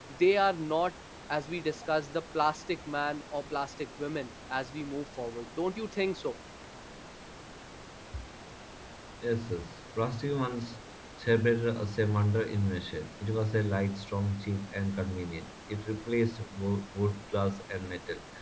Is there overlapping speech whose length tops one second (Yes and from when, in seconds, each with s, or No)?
No